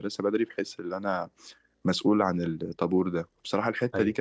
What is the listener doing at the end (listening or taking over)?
listening